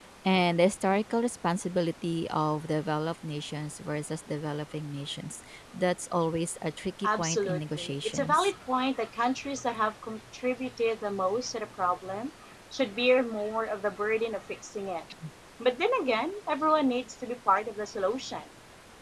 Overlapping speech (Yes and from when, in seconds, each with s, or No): Yes, from 7.0 s